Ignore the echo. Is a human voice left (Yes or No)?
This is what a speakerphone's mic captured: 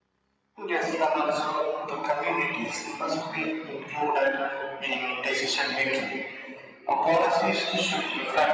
No